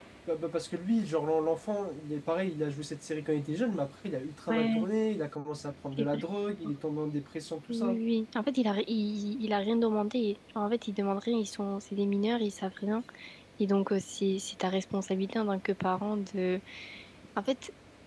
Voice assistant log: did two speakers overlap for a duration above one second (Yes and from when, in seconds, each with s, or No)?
No